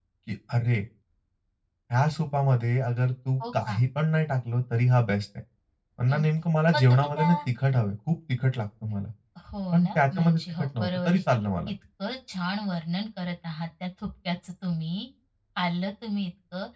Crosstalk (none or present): present